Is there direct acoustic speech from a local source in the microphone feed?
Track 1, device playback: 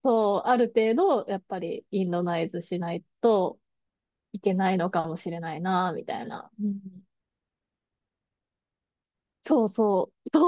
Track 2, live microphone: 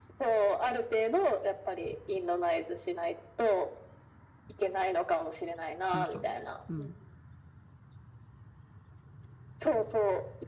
Yes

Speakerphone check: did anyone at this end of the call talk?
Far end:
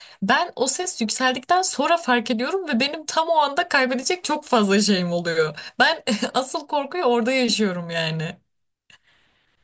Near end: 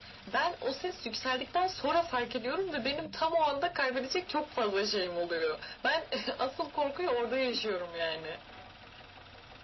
No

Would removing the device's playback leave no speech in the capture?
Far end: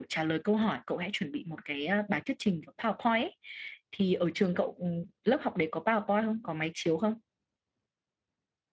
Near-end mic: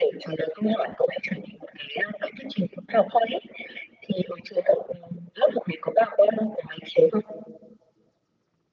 Yes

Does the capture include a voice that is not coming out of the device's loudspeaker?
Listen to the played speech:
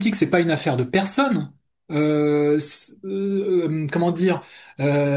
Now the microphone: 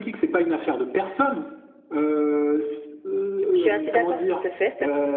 Yes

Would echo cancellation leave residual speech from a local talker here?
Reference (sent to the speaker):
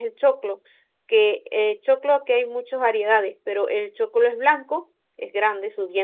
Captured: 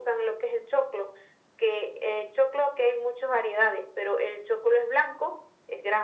No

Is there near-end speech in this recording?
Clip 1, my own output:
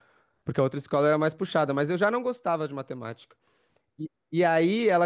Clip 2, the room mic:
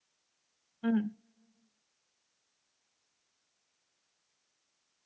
Yes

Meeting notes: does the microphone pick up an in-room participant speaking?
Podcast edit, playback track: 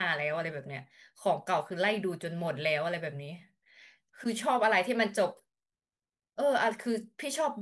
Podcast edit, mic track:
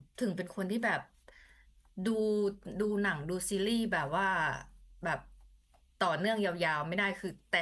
Yes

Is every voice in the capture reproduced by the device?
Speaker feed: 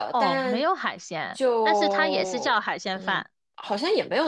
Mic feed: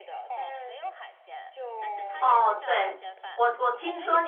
No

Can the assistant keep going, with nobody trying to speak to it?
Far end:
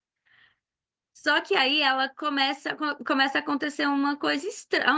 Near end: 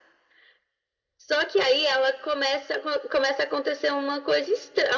Yes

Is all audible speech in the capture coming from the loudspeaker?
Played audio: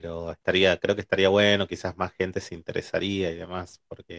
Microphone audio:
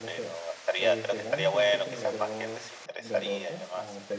No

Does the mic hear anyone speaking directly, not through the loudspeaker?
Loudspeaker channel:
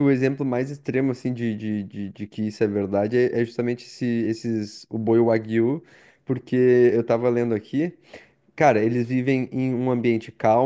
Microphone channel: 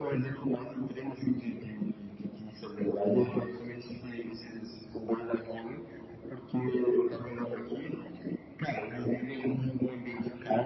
No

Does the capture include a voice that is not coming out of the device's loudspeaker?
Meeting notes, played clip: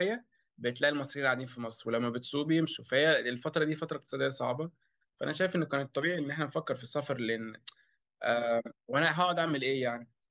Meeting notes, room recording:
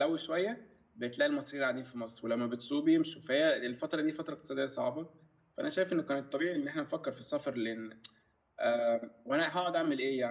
No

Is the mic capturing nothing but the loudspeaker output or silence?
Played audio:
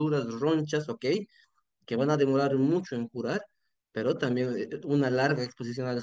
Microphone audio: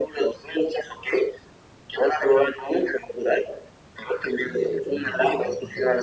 No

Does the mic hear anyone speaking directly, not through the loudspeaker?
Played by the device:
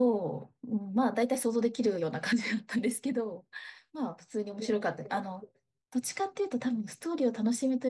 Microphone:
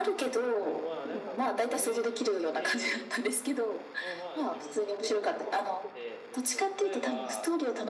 Yes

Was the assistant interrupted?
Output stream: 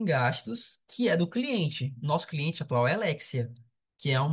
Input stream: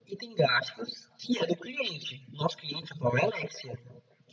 No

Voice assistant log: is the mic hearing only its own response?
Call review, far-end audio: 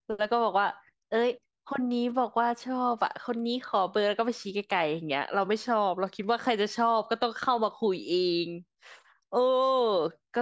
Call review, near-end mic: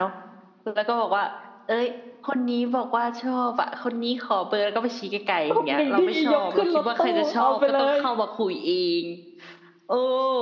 No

